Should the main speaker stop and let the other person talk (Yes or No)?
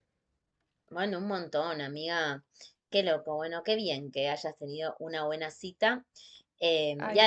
No